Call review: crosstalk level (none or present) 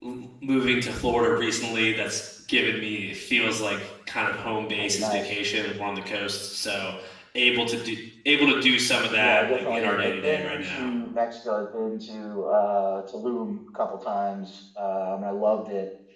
present